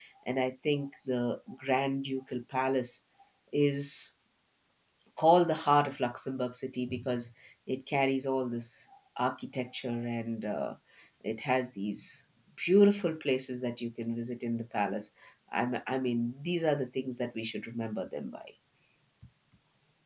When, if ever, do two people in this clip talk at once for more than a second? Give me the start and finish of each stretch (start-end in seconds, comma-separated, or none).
none